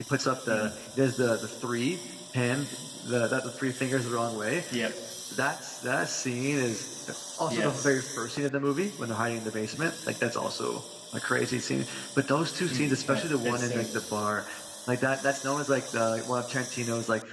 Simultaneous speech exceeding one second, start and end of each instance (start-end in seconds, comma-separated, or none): 12.7-14.0